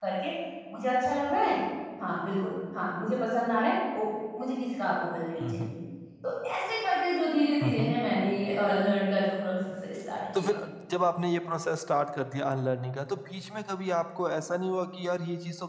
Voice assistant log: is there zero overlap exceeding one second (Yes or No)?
Yes